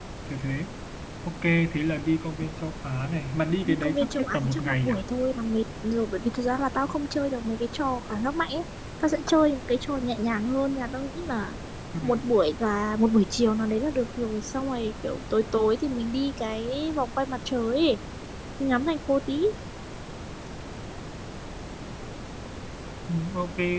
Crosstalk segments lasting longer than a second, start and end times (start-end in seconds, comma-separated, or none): 3.6-5.0